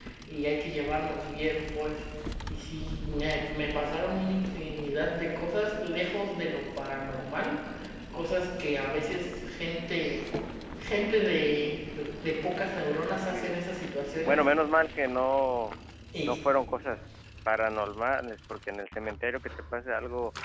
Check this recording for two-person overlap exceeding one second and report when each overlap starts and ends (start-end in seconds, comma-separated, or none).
none